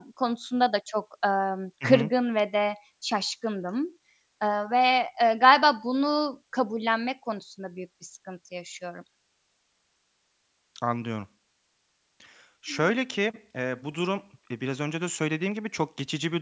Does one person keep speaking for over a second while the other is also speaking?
No

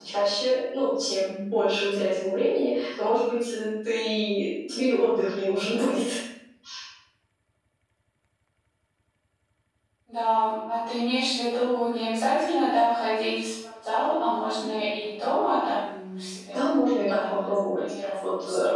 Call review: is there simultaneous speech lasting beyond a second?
Yes, from 16.5 s

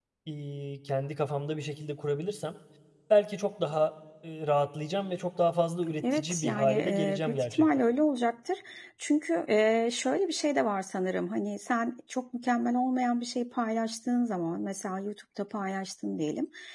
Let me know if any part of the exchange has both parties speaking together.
Yes, from 6.0 s

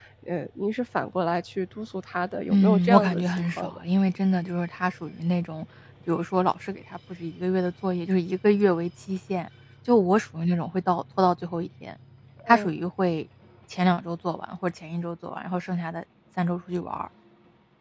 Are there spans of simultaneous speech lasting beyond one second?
Yes, from 2.5 s

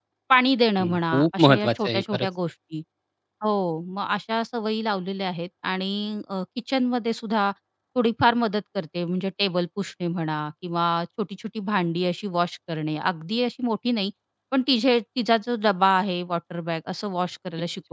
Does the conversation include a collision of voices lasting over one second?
Yes, from 0.8 s

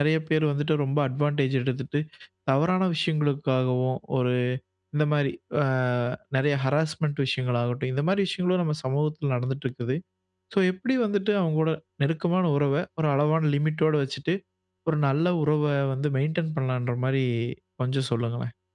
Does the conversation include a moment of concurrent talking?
No

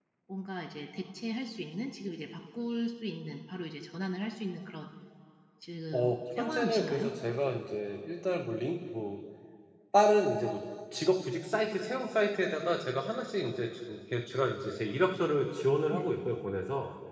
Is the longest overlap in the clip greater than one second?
Yes, from 5.9 s

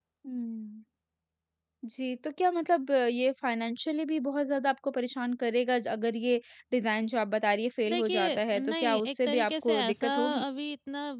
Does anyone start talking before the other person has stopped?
Yes, from 7.9 s

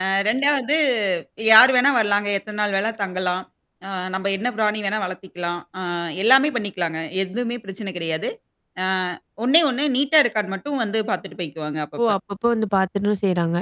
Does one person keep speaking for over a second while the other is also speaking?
No

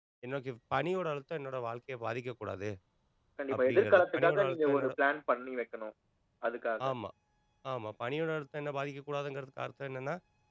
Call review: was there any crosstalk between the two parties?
Yes, from 3.6 s

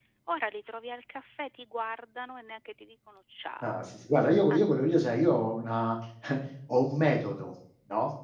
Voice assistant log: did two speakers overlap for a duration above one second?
No

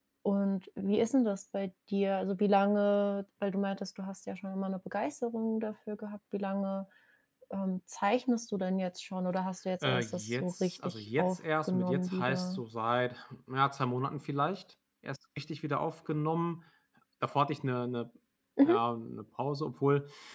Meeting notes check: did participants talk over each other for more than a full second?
Yes, from 9.8 s

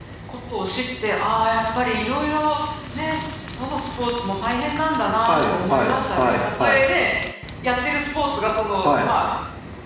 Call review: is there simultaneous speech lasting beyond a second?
Yes, from 5.3 s

